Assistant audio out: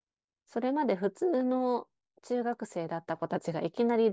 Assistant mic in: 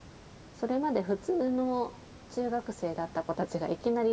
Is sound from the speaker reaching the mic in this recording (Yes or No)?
Yes